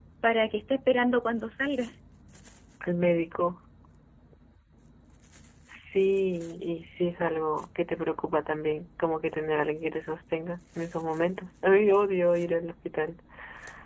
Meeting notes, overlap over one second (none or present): none